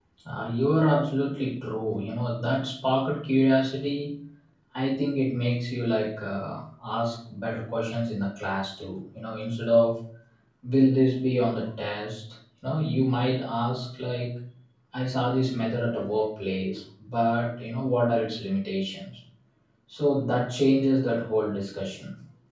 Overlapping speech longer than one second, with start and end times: none

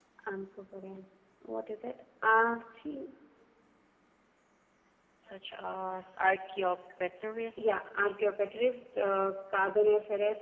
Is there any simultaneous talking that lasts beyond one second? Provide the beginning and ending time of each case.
none

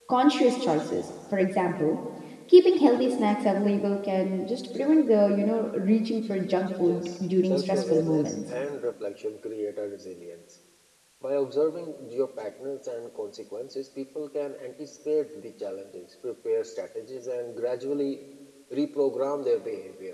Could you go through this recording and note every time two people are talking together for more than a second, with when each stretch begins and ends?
6.8-8.5

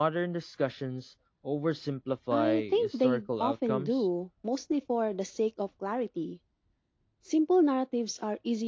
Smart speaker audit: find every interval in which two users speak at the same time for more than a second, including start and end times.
2.3-4.0

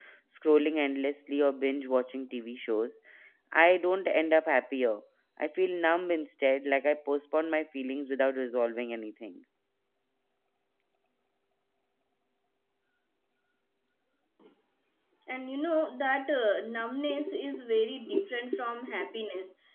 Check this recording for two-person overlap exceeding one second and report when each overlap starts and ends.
none

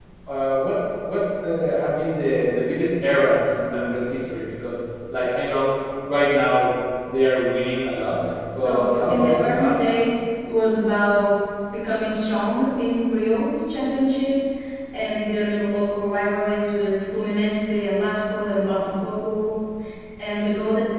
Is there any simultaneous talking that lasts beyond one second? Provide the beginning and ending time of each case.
8.6-9.8

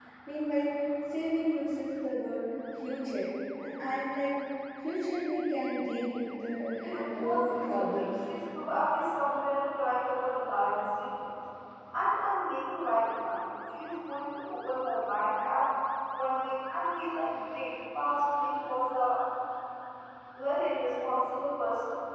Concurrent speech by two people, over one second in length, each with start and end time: 6.8-8.1

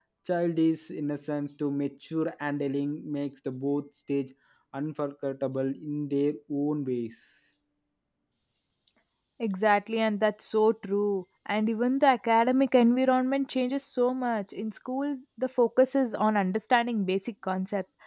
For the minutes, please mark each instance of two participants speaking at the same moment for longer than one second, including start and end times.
none

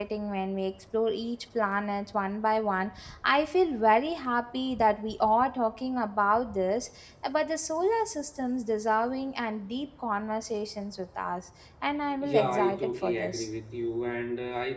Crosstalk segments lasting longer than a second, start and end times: 12.2-13.4

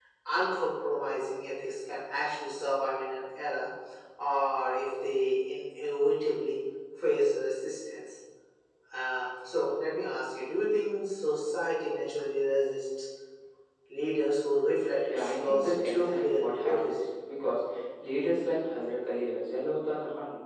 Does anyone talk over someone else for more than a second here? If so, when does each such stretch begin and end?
15.1-17.0

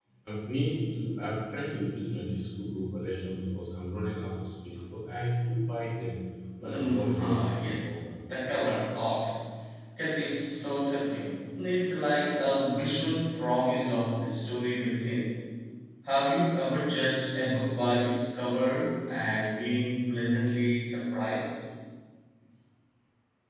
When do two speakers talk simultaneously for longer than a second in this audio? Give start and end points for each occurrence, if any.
6.6-7.9

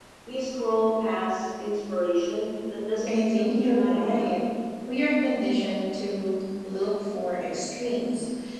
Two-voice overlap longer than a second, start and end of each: 3.1-4.3

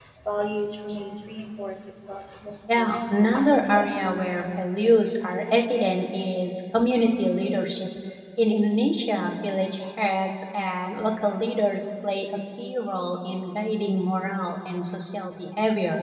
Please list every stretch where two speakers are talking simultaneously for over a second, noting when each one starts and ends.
2.8-4.0

